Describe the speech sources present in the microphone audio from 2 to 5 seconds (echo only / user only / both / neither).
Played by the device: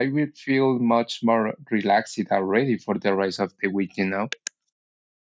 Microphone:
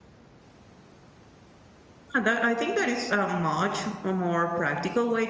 user only